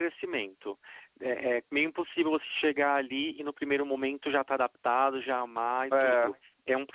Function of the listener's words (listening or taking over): listening